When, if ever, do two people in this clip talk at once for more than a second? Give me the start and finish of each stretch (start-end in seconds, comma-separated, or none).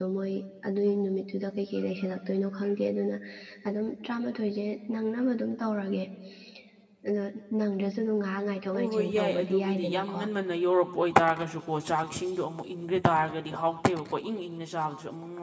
8.7-10.2